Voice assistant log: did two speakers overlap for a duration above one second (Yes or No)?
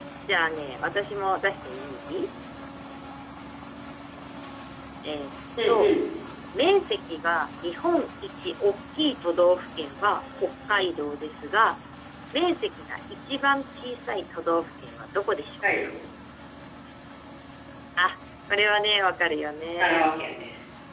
No